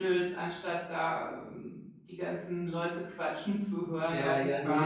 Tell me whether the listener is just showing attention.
No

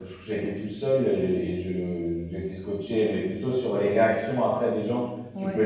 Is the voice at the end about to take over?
No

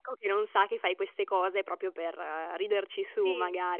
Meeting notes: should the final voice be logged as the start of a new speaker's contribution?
Yes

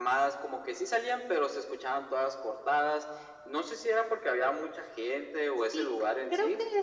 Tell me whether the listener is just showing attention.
No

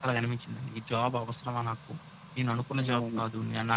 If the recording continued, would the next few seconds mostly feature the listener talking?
No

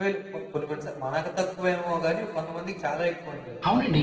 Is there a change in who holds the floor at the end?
Yes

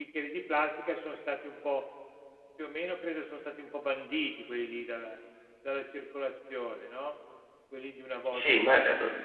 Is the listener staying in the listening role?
No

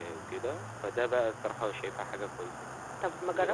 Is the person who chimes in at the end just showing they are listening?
No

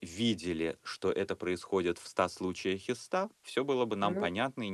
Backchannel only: Yes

